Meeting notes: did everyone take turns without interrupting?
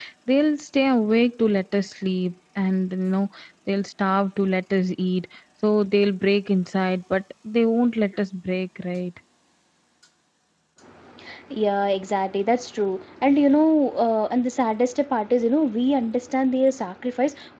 Yes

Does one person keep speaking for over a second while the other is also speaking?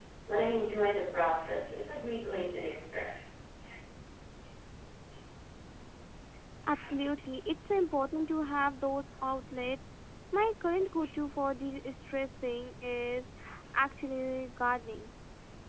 No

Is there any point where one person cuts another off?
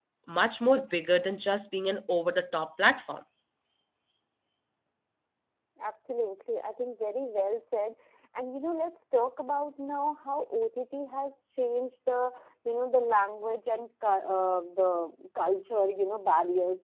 No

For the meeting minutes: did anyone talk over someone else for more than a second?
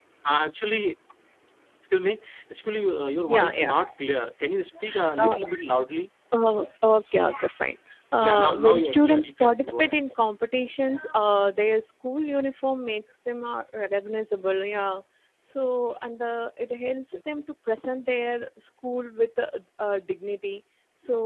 Yes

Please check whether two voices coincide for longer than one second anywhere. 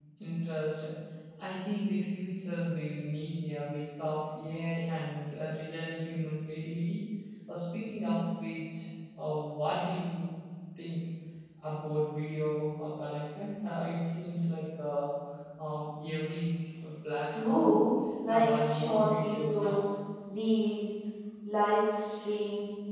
Yes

